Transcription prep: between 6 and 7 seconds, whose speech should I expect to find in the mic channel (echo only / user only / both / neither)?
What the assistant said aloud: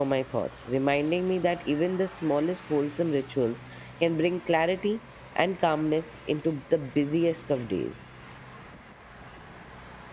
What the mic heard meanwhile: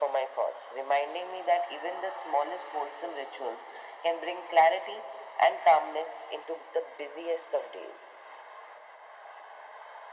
echo only